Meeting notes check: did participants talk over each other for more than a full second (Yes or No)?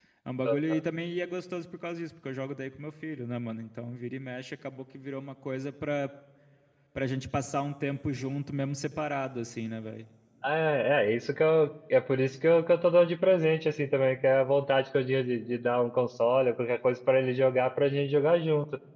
No